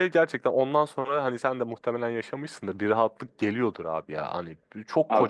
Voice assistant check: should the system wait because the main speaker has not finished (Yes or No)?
Yes